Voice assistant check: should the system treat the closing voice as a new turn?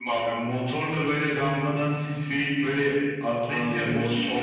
Yes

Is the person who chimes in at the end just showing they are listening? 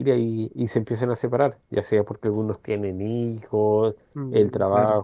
Yes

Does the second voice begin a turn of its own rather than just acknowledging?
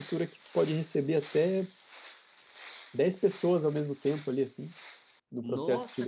Yes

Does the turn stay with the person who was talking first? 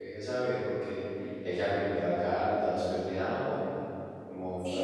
No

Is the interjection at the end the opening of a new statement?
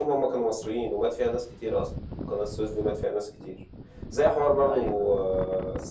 No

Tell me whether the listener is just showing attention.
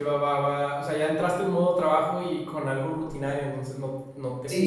No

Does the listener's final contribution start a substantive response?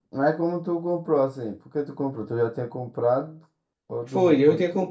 Yes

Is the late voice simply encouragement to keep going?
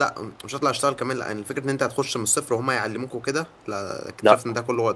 Yes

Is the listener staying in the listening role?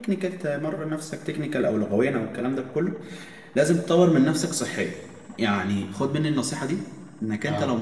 Yes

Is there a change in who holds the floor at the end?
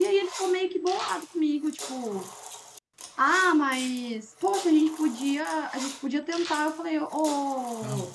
No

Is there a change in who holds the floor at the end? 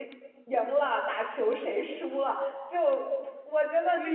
No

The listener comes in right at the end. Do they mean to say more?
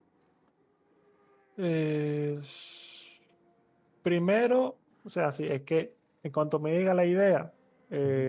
No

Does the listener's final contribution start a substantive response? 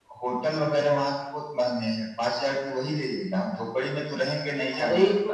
Yes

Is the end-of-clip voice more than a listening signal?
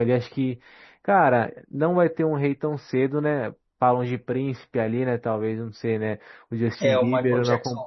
Yes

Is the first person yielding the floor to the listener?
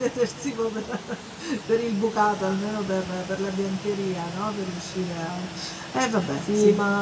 Yes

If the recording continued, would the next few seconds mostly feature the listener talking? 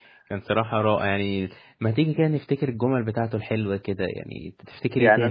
Yes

